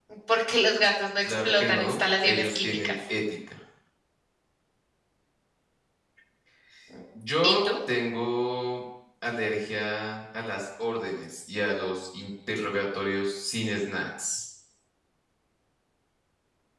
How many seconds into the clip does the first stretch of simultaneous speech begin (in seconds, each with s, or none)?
1.2 s